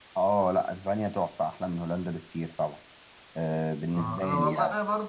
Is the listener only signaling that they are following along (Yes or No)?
No